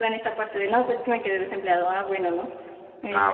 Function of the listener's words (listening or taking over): taking over